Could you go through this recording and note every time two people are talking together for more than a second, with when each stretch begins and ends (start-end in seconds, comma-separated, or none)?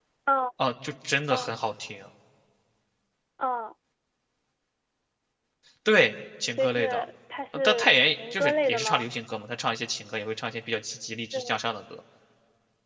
7.5-9.1